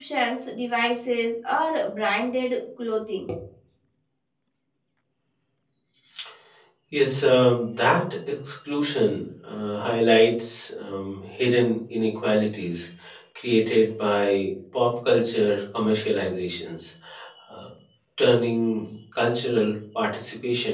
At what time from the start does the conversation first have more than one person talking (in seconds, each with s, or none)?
none